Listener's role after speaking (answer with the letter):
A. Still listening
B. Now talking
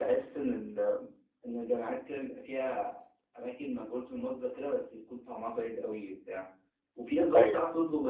A